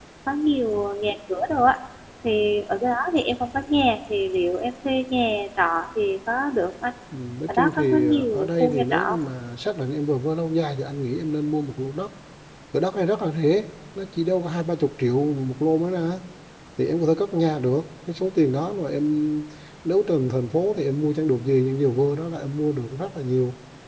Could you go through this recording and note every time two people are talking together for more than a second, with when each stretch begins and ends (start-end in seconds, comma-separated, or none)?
7.5-9.2